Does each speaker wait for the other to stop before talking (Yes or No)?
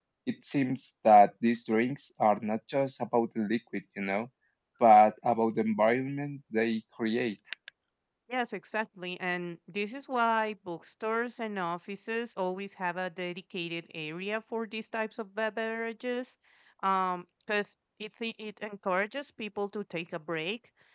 Yes